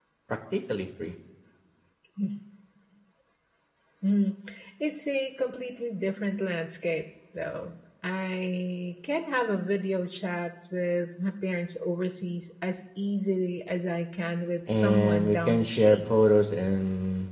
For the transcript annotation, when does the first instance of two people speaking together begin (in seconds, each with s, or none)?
14.7 s